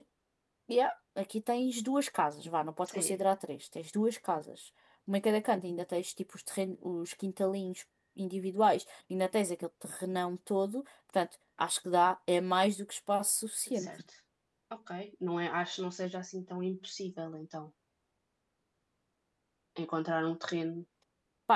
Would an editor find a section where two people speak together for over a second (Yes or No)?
No